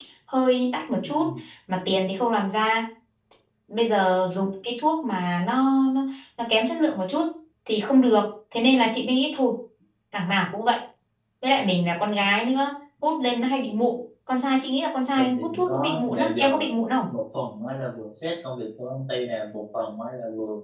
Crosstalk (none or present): present